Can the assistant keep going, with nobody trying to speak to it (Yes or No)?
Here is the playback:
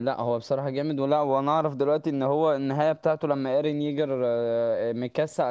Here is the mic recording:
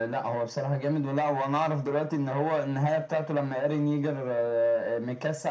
Yes